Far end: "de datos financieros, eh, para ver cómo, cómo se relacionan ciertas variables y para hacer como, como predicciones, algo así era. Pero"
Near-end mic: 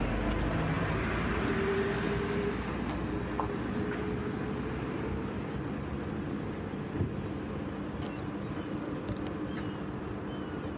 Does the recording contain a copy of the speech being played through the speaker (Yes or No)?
No